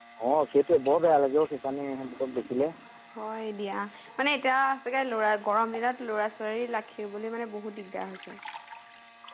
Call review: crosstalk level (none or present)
none